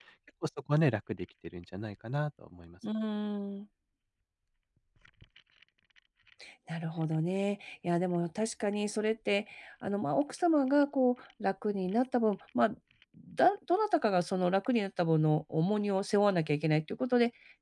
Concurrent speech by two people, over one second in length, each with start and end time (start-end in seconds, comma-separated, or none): none